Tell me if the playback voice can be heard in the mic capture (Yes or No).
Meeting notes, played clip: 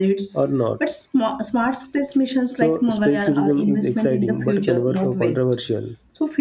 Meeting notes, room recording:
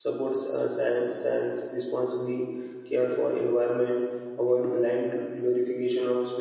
No